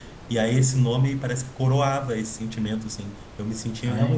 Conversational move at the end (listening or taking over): listening